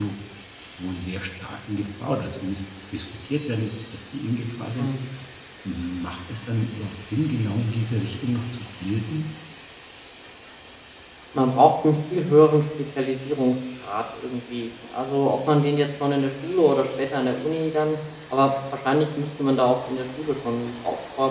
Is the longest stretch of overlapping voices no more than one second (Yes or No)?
Yes